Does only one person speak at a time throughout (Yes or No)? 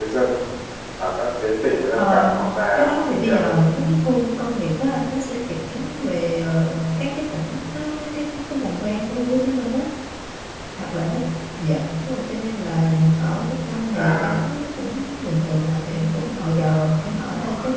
No